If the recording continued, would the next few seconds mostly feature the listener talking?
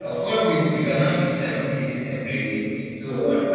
No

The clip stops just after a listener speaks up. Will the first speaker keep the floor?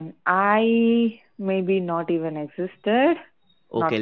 No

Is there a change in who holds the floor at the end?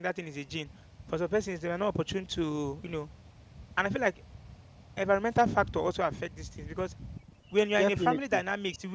No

